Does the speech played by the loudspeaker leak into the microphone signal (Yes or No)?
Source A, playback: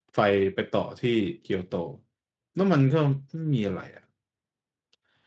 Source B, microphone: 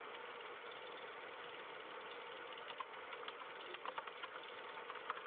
No